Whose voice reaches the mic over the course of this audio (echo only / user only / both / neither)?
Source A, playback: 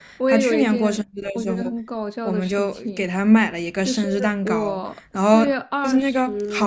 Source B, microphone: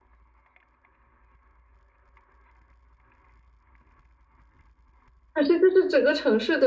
user only